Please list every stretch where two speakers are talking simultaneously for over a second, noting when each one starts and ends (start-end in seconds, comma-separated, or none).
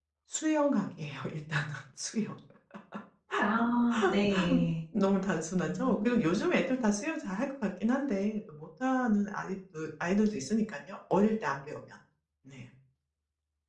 none